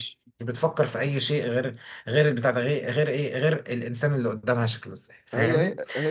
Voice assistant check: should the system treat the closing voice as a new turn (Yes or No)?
Yes